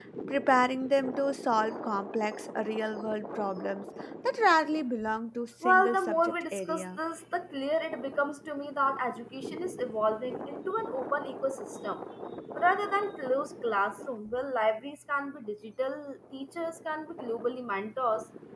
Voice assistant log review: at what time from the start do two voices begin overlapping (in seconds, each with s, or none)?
5.6 s